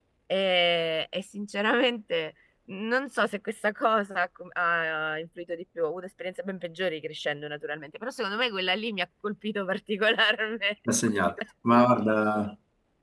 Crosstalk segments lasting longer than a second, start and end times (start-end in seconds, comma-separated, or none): none